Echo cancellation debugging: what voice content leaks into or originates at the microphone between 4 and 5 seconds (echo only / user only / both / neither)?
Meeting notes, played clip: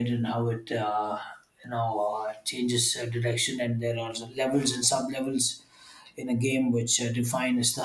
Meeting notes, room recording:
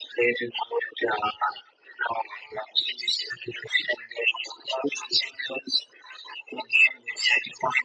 echo only